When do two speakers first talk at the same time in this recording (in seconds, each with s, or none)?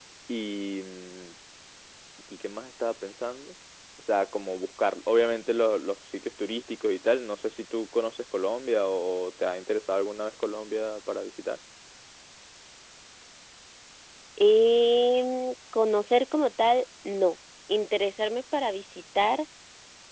none